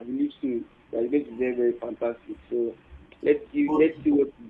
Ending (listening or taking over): listening